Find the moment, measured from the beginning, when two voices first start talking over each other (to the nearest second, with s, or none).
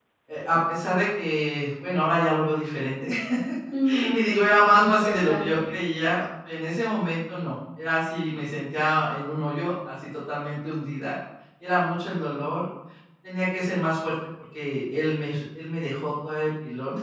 4 s